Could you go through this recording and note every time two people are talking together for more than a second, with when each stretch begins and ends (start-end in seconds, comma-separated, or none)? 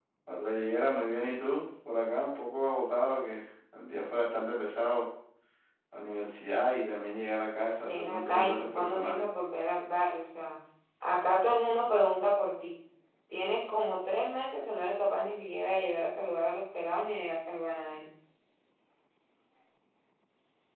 7.8-9.2